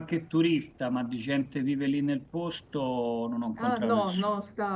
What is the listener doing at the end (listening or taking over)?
taking over